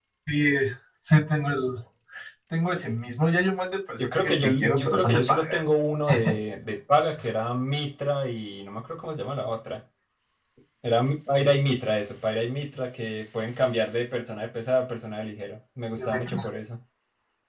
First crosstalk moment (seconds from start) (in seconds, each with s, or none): 4.0 s